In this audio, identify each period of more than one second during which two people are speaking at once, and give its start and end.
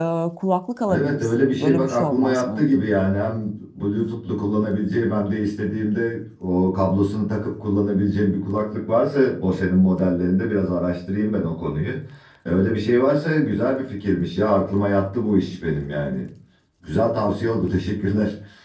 0.9-2.6

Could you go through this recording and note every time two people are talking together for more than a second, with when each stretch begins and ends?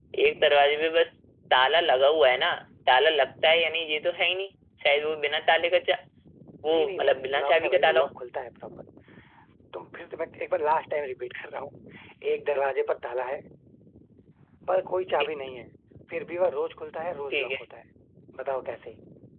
6.7-8.1

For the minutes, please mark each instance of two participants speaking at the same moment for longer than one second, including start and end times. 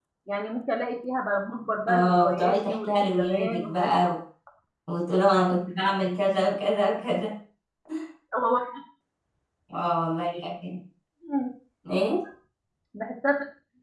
1.9-4.1

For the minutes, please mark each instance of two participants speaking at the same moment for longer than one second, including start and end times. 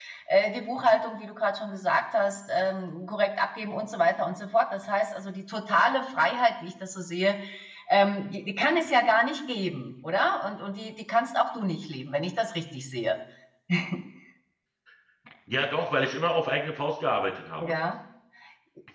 none

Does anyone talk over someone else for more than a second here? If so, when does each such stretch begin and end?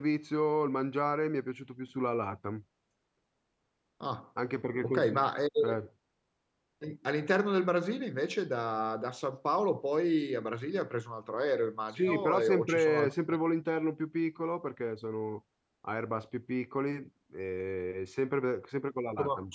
11.9-13.1

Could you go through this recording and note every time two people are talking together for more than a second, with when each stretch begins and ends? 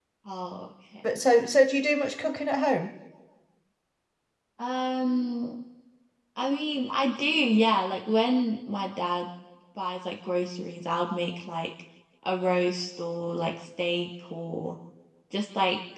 none

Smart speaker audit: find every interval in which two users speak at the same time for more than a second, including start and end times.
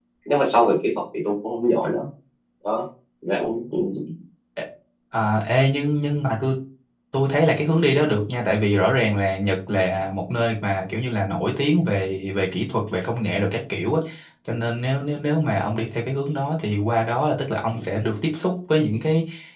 none

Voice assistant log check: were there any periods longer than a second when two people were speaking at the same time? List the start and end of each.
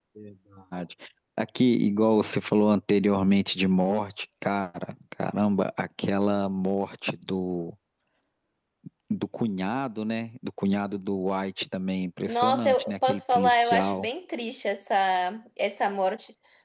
12.3-14.1

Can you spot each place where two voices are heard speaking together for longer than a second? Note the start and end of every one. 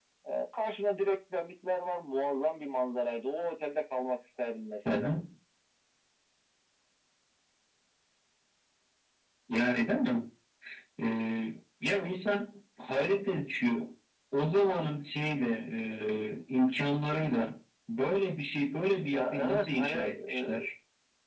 19.1-20.6

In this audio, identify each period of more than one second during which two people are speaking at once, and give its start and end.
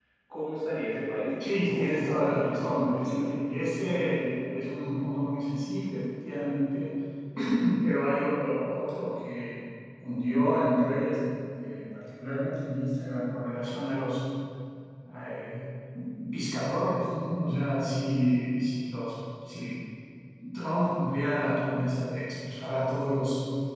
1.4-3.4

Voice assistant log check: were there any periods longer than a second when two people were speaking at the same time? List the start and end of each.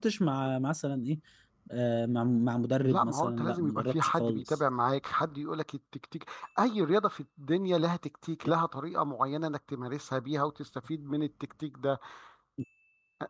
2.8-4.6

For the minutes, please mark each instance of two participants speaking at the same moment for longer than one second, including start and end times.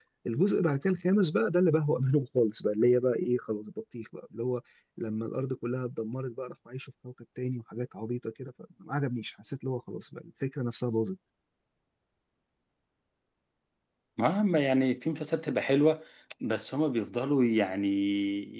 none

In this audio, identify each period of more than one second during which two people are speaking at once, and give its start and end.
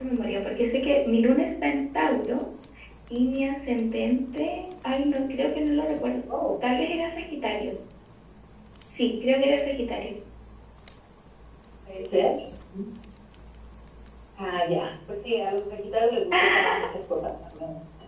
none

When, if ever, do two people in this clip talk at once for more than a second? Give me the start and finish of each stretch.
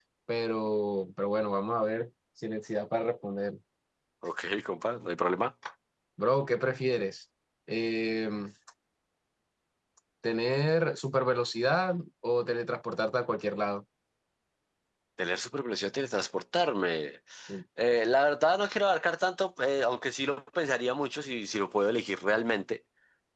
none

